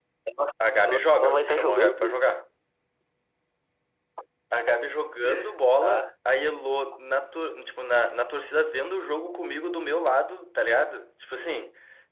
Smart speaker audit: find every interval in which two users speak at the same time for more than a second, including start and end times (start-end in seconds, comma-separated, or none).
0.9-2.2